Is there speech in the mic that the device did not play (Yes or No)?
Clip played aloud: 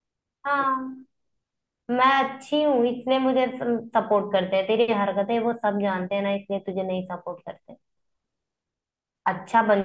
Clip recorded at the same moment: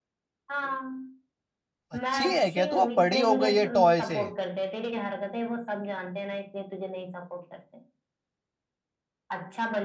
Yes